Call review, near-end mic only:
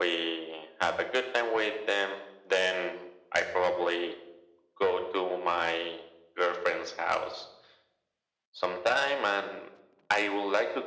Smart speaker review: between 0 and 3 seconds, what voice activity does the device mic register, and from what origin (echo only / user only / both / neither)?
echo only